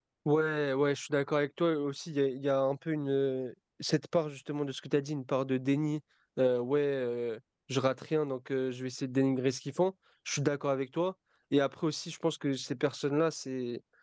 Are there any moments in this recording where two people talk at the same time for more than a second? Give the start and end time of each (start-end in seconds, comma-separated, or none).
none